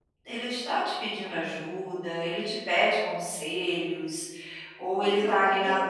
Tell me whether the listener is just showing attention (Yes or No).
No